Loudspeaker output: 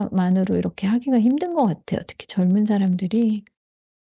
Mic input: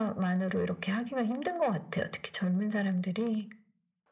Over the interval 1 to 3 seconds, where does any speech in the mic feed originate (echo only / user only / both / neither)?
echo only